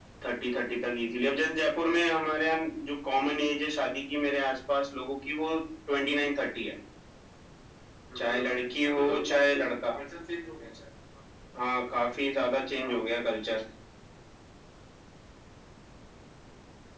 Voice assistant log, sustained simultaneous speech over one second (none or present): present